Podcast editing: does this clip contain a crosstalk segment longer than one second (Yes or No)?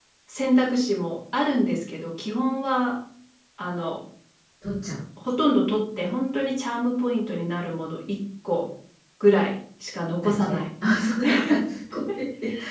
No